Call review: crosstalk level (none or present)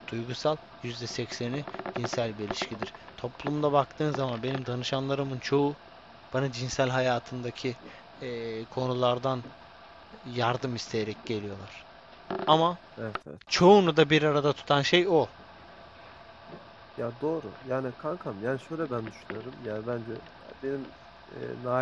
none